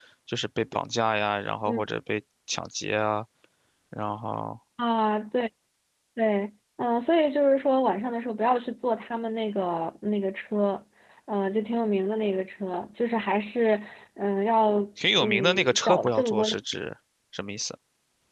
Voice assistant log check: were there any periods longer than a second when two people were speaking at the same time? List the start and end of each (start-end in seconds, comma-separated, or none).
15.2-16.5